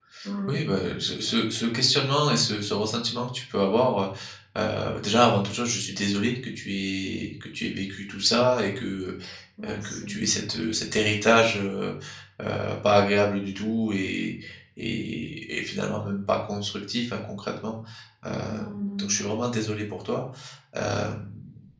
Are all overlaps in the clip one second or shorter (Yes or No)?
Yes